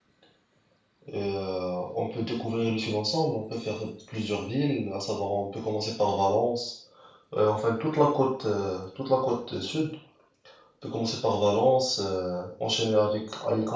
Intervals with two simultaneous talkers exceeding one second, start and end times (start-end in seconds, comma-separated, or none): none